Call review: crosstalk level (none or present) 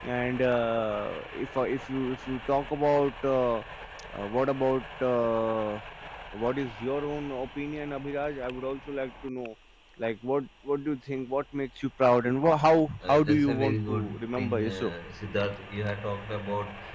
present